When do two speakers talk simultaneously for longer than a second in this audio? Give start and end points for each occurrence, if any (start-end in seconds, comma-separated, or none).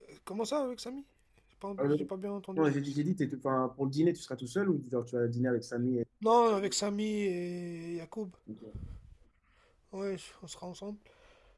none